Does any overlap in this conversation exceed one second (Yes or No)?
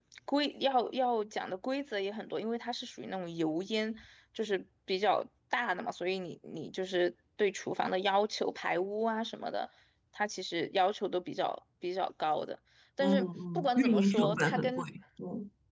Yes